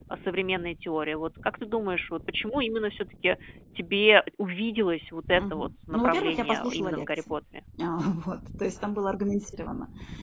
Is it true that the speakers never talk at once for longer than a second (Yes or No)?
No